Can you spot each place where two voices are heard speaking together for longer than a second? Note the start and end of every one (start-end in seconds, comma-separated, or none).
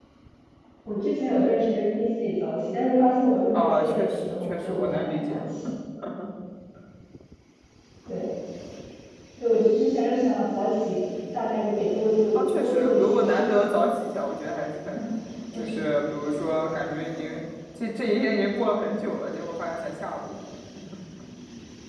3.5-5.4, 12.3-14.2